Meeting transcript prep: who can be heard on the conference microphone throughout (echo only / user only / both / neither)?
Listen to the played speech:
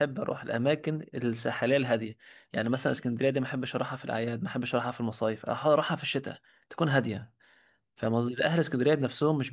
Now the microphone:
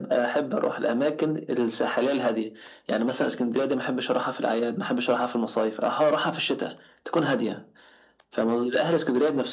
echo only